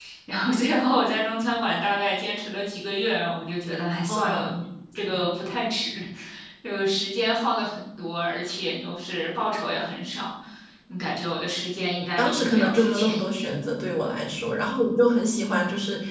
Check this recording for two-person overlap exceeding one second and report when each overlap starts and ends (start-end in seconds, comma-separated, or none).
11.6-13.5